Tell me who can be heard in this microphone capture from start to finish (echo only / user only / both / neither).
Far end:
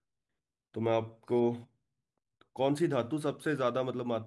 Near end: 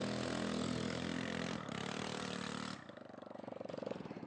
neither